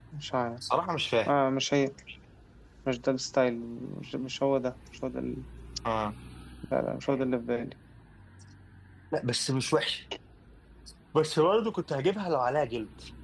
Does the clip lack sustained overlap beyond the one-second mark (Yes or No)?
Yes